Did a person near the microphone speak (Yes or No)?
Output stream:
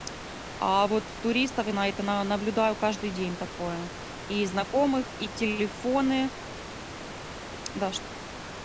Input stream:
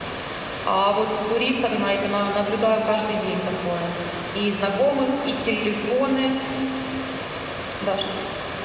No